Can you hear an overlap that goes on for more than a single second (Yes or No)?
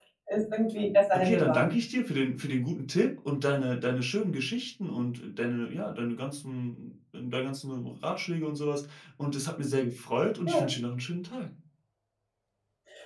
No